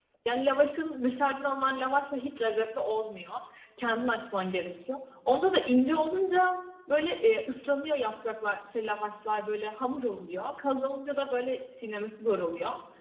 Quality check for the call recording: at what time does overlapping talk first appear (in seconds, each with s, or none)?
none